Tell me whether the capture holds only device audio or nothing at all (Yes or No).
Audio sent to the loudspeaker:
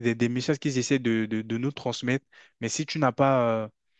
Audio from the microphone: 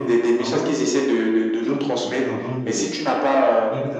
No